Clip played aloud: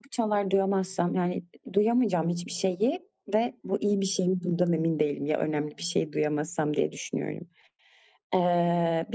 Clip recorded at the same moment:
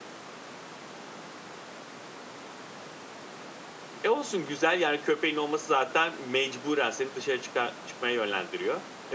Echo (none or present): none